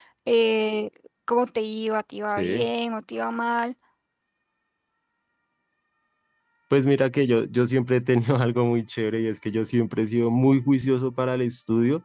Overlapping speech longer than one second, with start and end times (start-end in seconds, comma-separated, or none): none